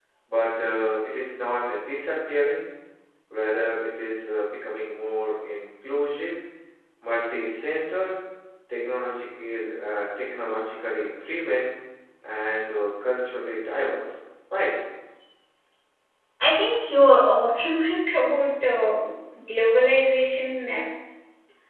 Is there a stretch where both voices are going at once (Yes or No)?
No